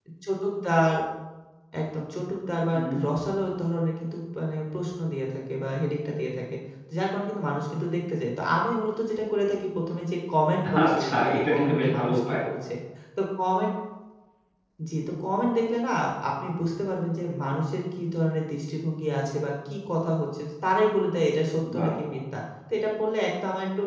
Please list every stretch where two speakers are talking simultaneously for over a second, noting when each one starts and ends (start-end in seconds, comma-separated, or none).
10.8-12.4